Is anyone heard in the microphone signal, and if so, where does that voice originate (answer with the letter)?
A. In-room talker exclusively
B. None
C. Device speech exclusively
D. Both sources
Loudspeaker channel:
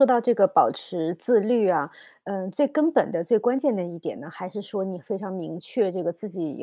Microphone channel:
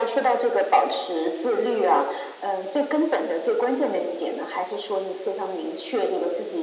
C